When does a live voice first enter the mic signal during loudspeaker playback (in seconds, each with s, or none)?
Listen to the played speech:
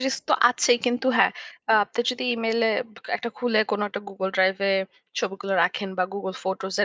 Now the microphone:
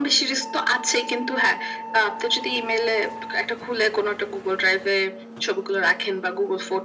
none